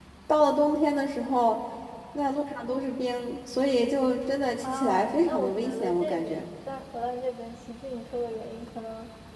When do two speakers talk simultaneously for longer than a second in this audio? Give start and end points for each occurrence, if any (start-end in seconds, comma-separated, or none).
4.6-6.4